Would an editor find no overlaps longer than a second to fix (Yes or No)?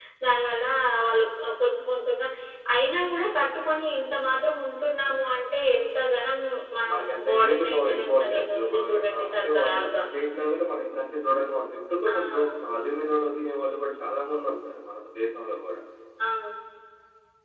No